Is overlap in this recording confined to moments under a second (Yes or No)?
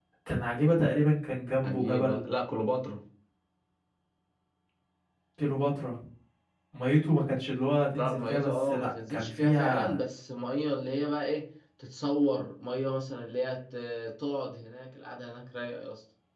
No